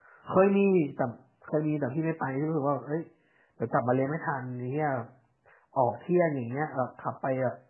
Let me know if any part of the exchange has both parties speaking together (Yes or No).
No